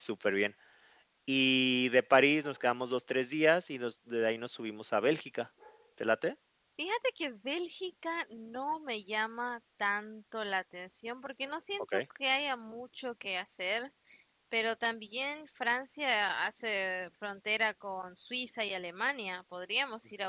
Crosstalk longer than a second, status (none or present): none